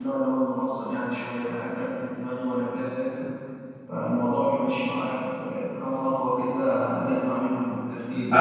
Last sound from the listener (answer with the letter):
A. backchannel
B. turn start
B